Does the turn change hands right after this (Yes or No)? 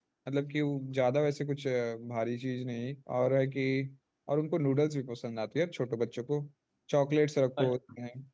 No